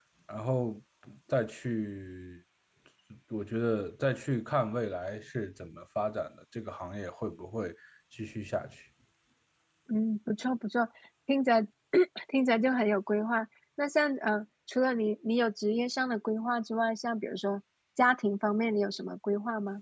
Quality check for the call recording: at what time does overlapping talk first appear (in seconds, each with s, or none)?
none